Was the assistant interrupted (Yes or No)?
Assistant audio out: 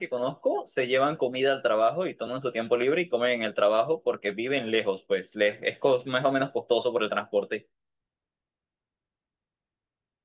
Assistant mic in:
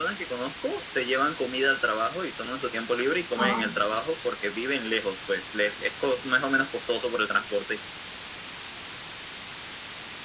Yes